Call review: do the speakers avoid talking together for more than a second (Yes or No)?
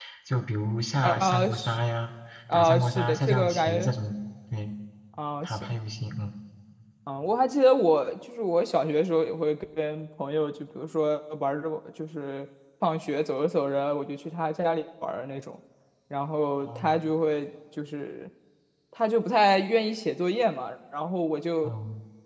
No